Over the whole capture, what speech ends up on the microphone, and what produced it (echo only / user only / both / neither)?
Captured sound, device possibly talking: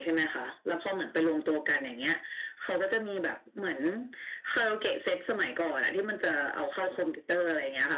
echo only